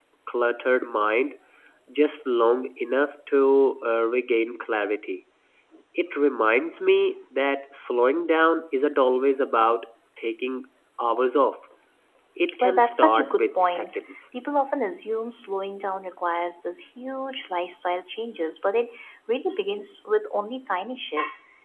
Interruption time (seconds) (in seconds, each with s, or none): 12.6 s